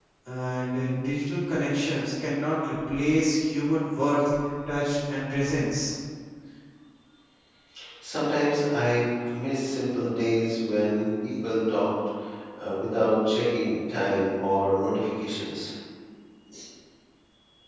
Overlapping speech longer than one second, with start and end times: none

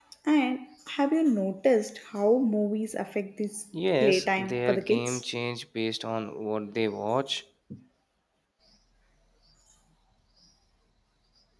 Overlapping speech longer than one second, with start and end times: 4.0-5.2

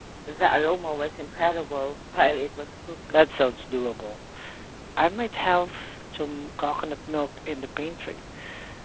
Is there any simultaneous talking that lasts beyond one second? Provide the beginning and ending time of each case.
none

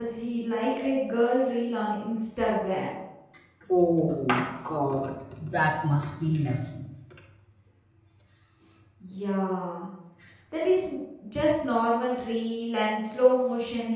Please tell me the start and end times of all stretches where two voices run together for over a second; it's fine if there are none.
none

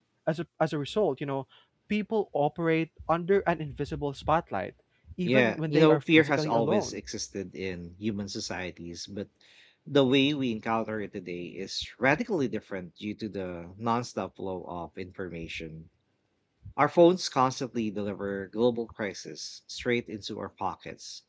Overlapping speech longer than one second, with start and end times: 5.2-7.0

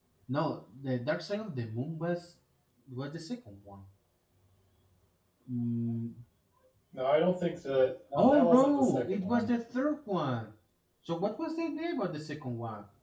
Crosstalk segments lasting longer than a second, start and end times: 8.2-9.5

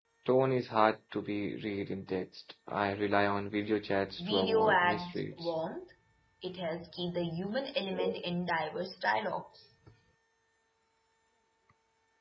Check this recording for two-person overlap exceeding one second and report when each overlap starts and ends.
4.2-5.5

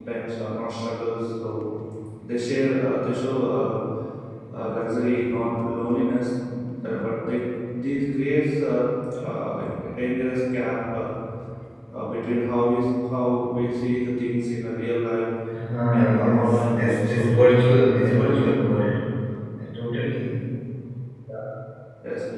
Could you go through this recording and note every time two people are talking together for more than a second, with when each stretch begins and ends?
15.9-17.5

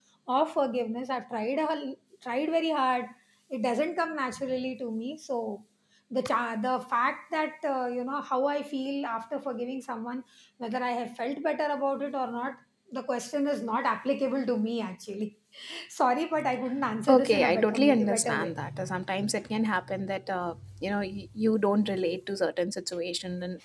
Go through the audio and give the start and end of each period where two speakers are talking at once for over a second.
17.1-18.5

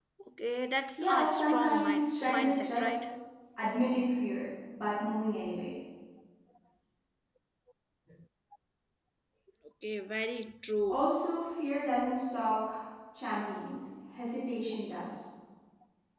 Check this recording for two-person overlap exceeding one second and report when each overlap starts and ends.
1.0-3.0

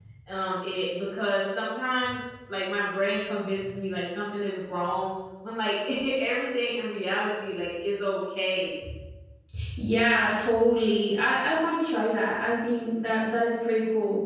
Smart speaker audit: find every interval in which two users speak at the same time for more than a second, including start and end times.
none

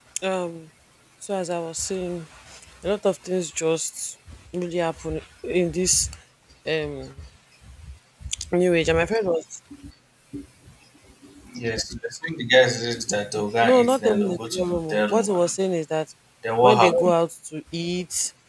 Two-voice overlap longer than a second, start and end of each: 13.6-15.4

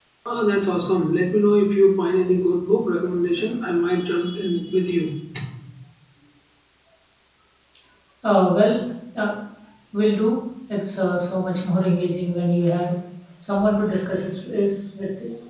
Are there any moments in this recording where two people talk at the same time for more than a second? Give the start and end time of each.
none

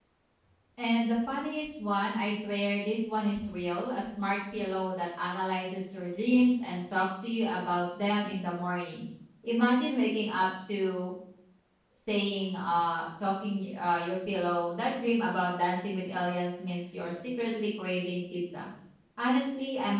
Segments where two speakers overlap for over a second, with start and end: none

